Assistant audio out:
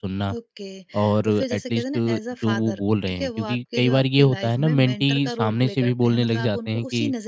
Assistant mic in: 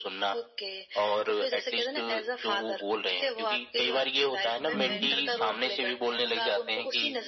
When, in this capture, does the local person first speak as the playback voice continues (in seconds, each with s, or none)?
4.7 s